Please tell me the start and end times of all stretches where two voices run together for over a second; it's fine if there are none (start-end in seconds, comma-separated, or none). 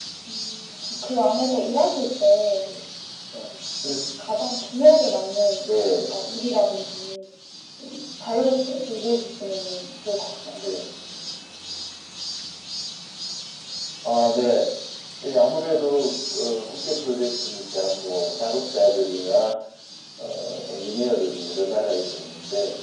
none